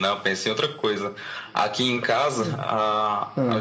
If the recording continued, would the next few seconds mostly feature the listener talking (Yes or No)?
No